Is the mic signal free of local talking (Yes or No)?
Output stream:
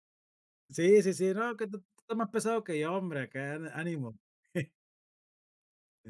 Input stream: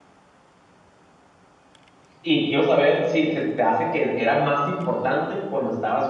No